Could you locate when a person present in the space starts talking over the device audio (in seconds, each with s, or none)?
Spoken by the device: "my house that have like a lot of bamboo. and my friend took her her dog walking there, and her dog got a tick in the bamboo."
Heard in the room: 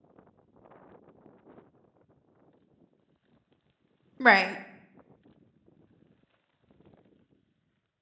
4.2 s